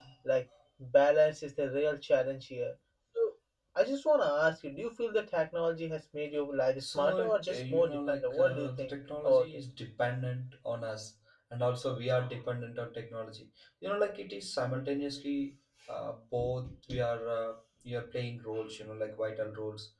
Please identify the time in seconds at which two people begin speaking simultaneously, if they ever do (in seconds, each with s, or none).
6.8 s